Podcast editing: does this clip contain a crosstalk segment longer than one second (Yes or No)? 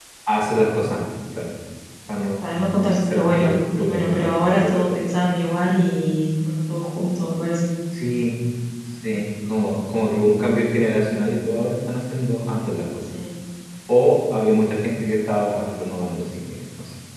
Yes